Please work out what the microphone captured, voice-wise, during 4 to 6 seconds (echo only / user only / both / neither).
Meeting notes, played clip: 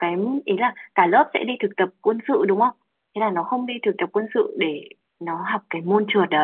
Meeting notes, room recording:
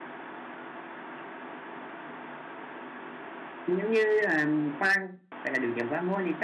user only